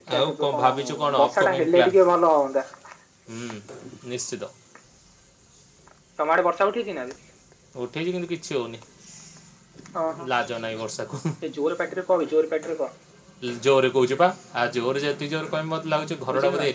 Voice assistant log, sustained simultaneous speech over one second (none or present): present